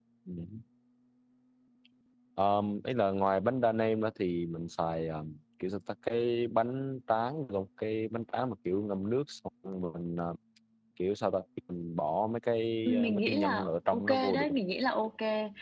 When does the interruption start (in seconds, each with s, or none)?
12.8 s